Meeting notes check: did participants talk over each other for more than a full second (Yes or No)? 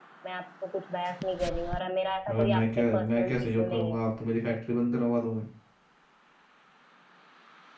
Yes